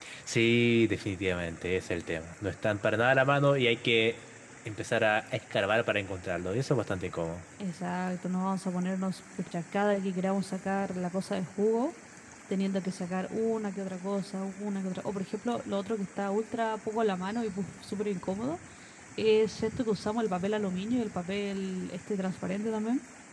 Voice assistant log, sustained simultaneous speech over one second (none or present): none